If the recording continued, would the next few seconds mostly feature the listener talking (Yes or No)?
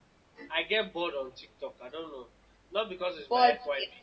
No